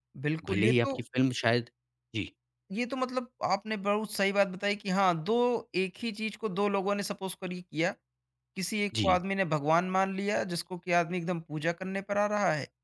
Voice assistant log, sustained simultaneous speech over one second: none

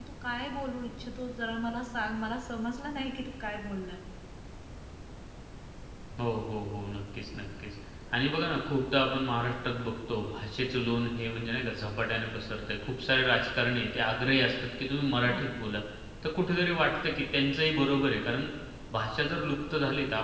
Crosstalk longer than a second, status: none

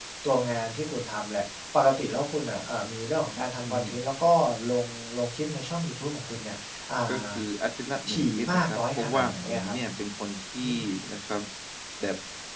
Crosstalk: present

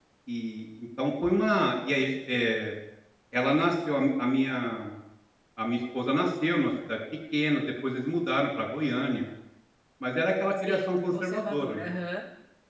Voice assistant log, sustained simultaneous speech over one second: present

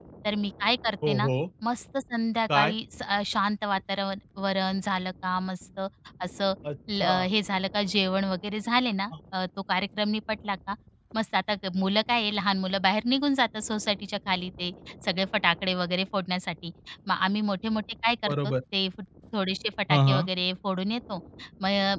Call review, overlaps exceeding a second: none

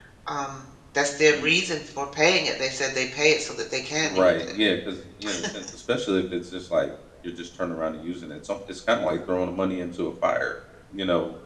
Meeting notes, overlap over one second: none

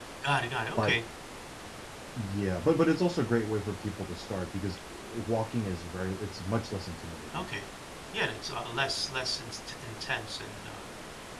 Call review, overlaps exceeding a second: none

